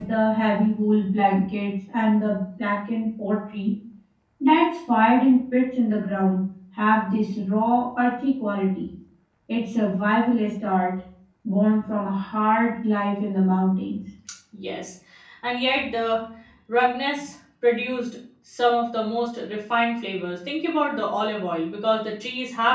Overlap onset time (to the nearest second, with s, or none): none